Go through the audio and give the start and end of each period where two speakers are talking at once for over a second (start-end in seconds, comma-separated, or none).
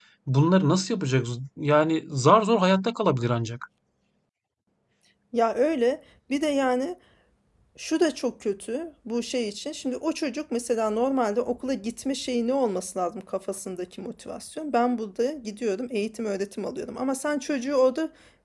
none